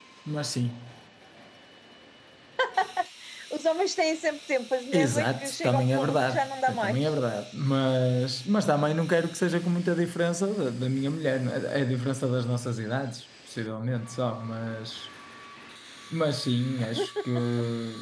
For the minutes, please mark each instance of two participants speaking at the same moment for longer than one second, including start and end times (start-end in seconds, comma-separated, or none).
4.9-7.1